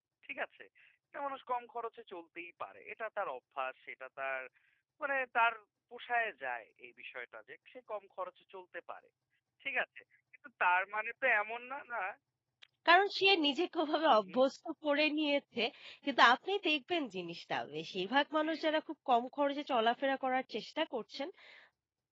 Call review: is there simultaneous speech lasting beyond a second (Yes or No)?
No